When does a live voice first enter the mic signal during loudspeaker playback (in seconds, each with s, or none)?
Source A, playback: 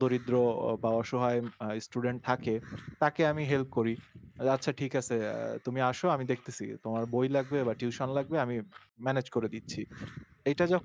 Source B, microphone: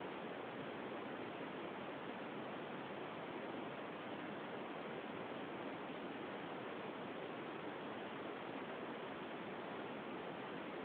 none